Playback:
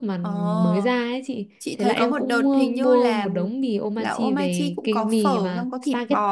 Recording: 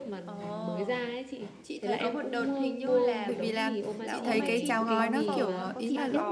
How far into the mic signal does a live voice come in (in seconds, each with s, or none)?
3.2 s